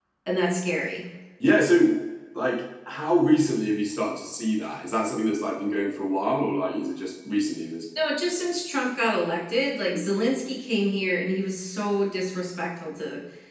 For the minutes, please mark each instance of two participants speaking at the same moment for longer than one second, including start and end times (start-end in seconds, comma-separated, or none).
none